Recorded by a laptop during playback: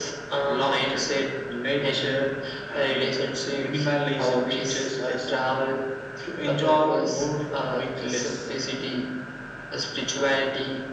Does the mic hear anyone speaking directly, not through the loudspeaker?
No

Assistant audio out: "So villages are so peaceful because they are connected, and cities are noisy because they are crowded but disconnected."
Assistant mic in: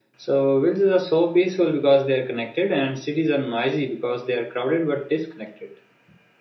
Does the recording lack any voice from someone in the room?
Yes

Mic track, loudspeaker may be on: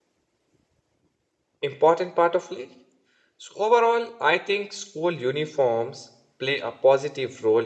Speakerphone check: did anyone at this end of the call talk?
Yes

